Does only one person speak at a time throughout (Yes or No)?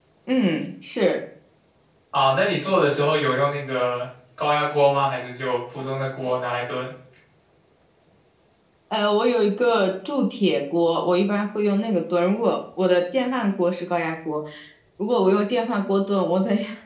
Yes